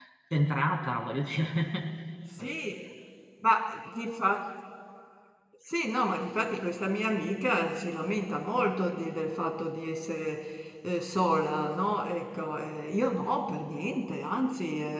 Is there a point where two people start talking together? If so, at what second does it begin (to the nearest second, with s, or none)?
none